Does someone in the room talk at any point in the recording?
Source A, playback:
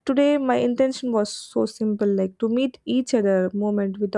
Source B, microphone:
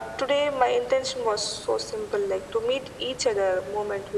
No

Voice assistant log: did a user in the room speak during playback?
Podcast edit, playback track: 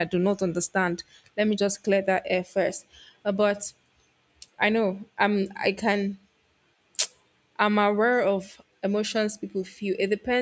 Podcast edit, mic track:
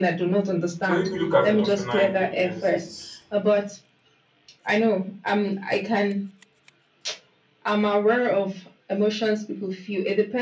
Yes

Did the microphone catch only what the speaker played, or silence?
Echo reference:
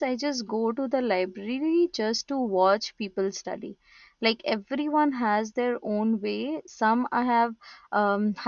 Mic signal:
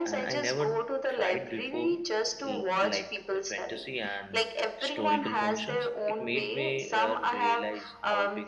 No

